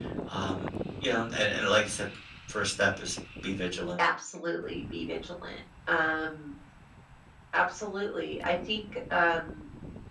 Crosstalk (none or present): none